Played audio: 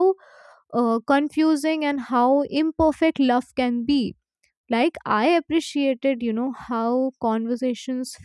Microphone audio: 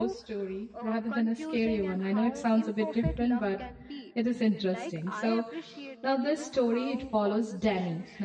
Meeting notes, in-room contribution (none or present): present